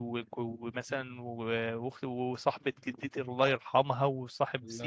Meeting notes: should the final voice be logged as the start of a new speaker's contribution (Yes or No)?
No